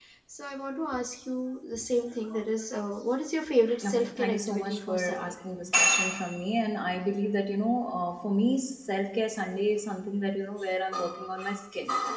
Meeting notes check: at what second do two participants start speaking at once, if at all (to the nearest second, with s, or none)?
4 s